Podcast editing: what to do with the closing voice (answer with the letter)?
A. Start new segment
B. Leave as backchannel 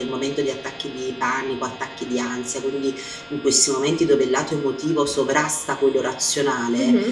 B